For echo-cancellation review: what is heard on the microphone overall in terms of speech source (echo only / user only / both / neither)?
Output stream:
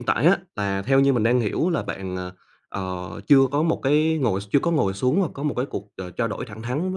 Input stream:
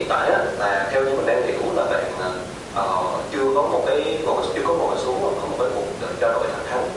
echo only